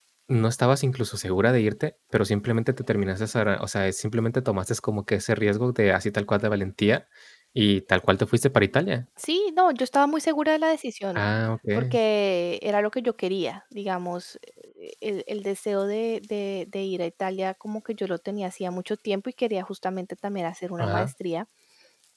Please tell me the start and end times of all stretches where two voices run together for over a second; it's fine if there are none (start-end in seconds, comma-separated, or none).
none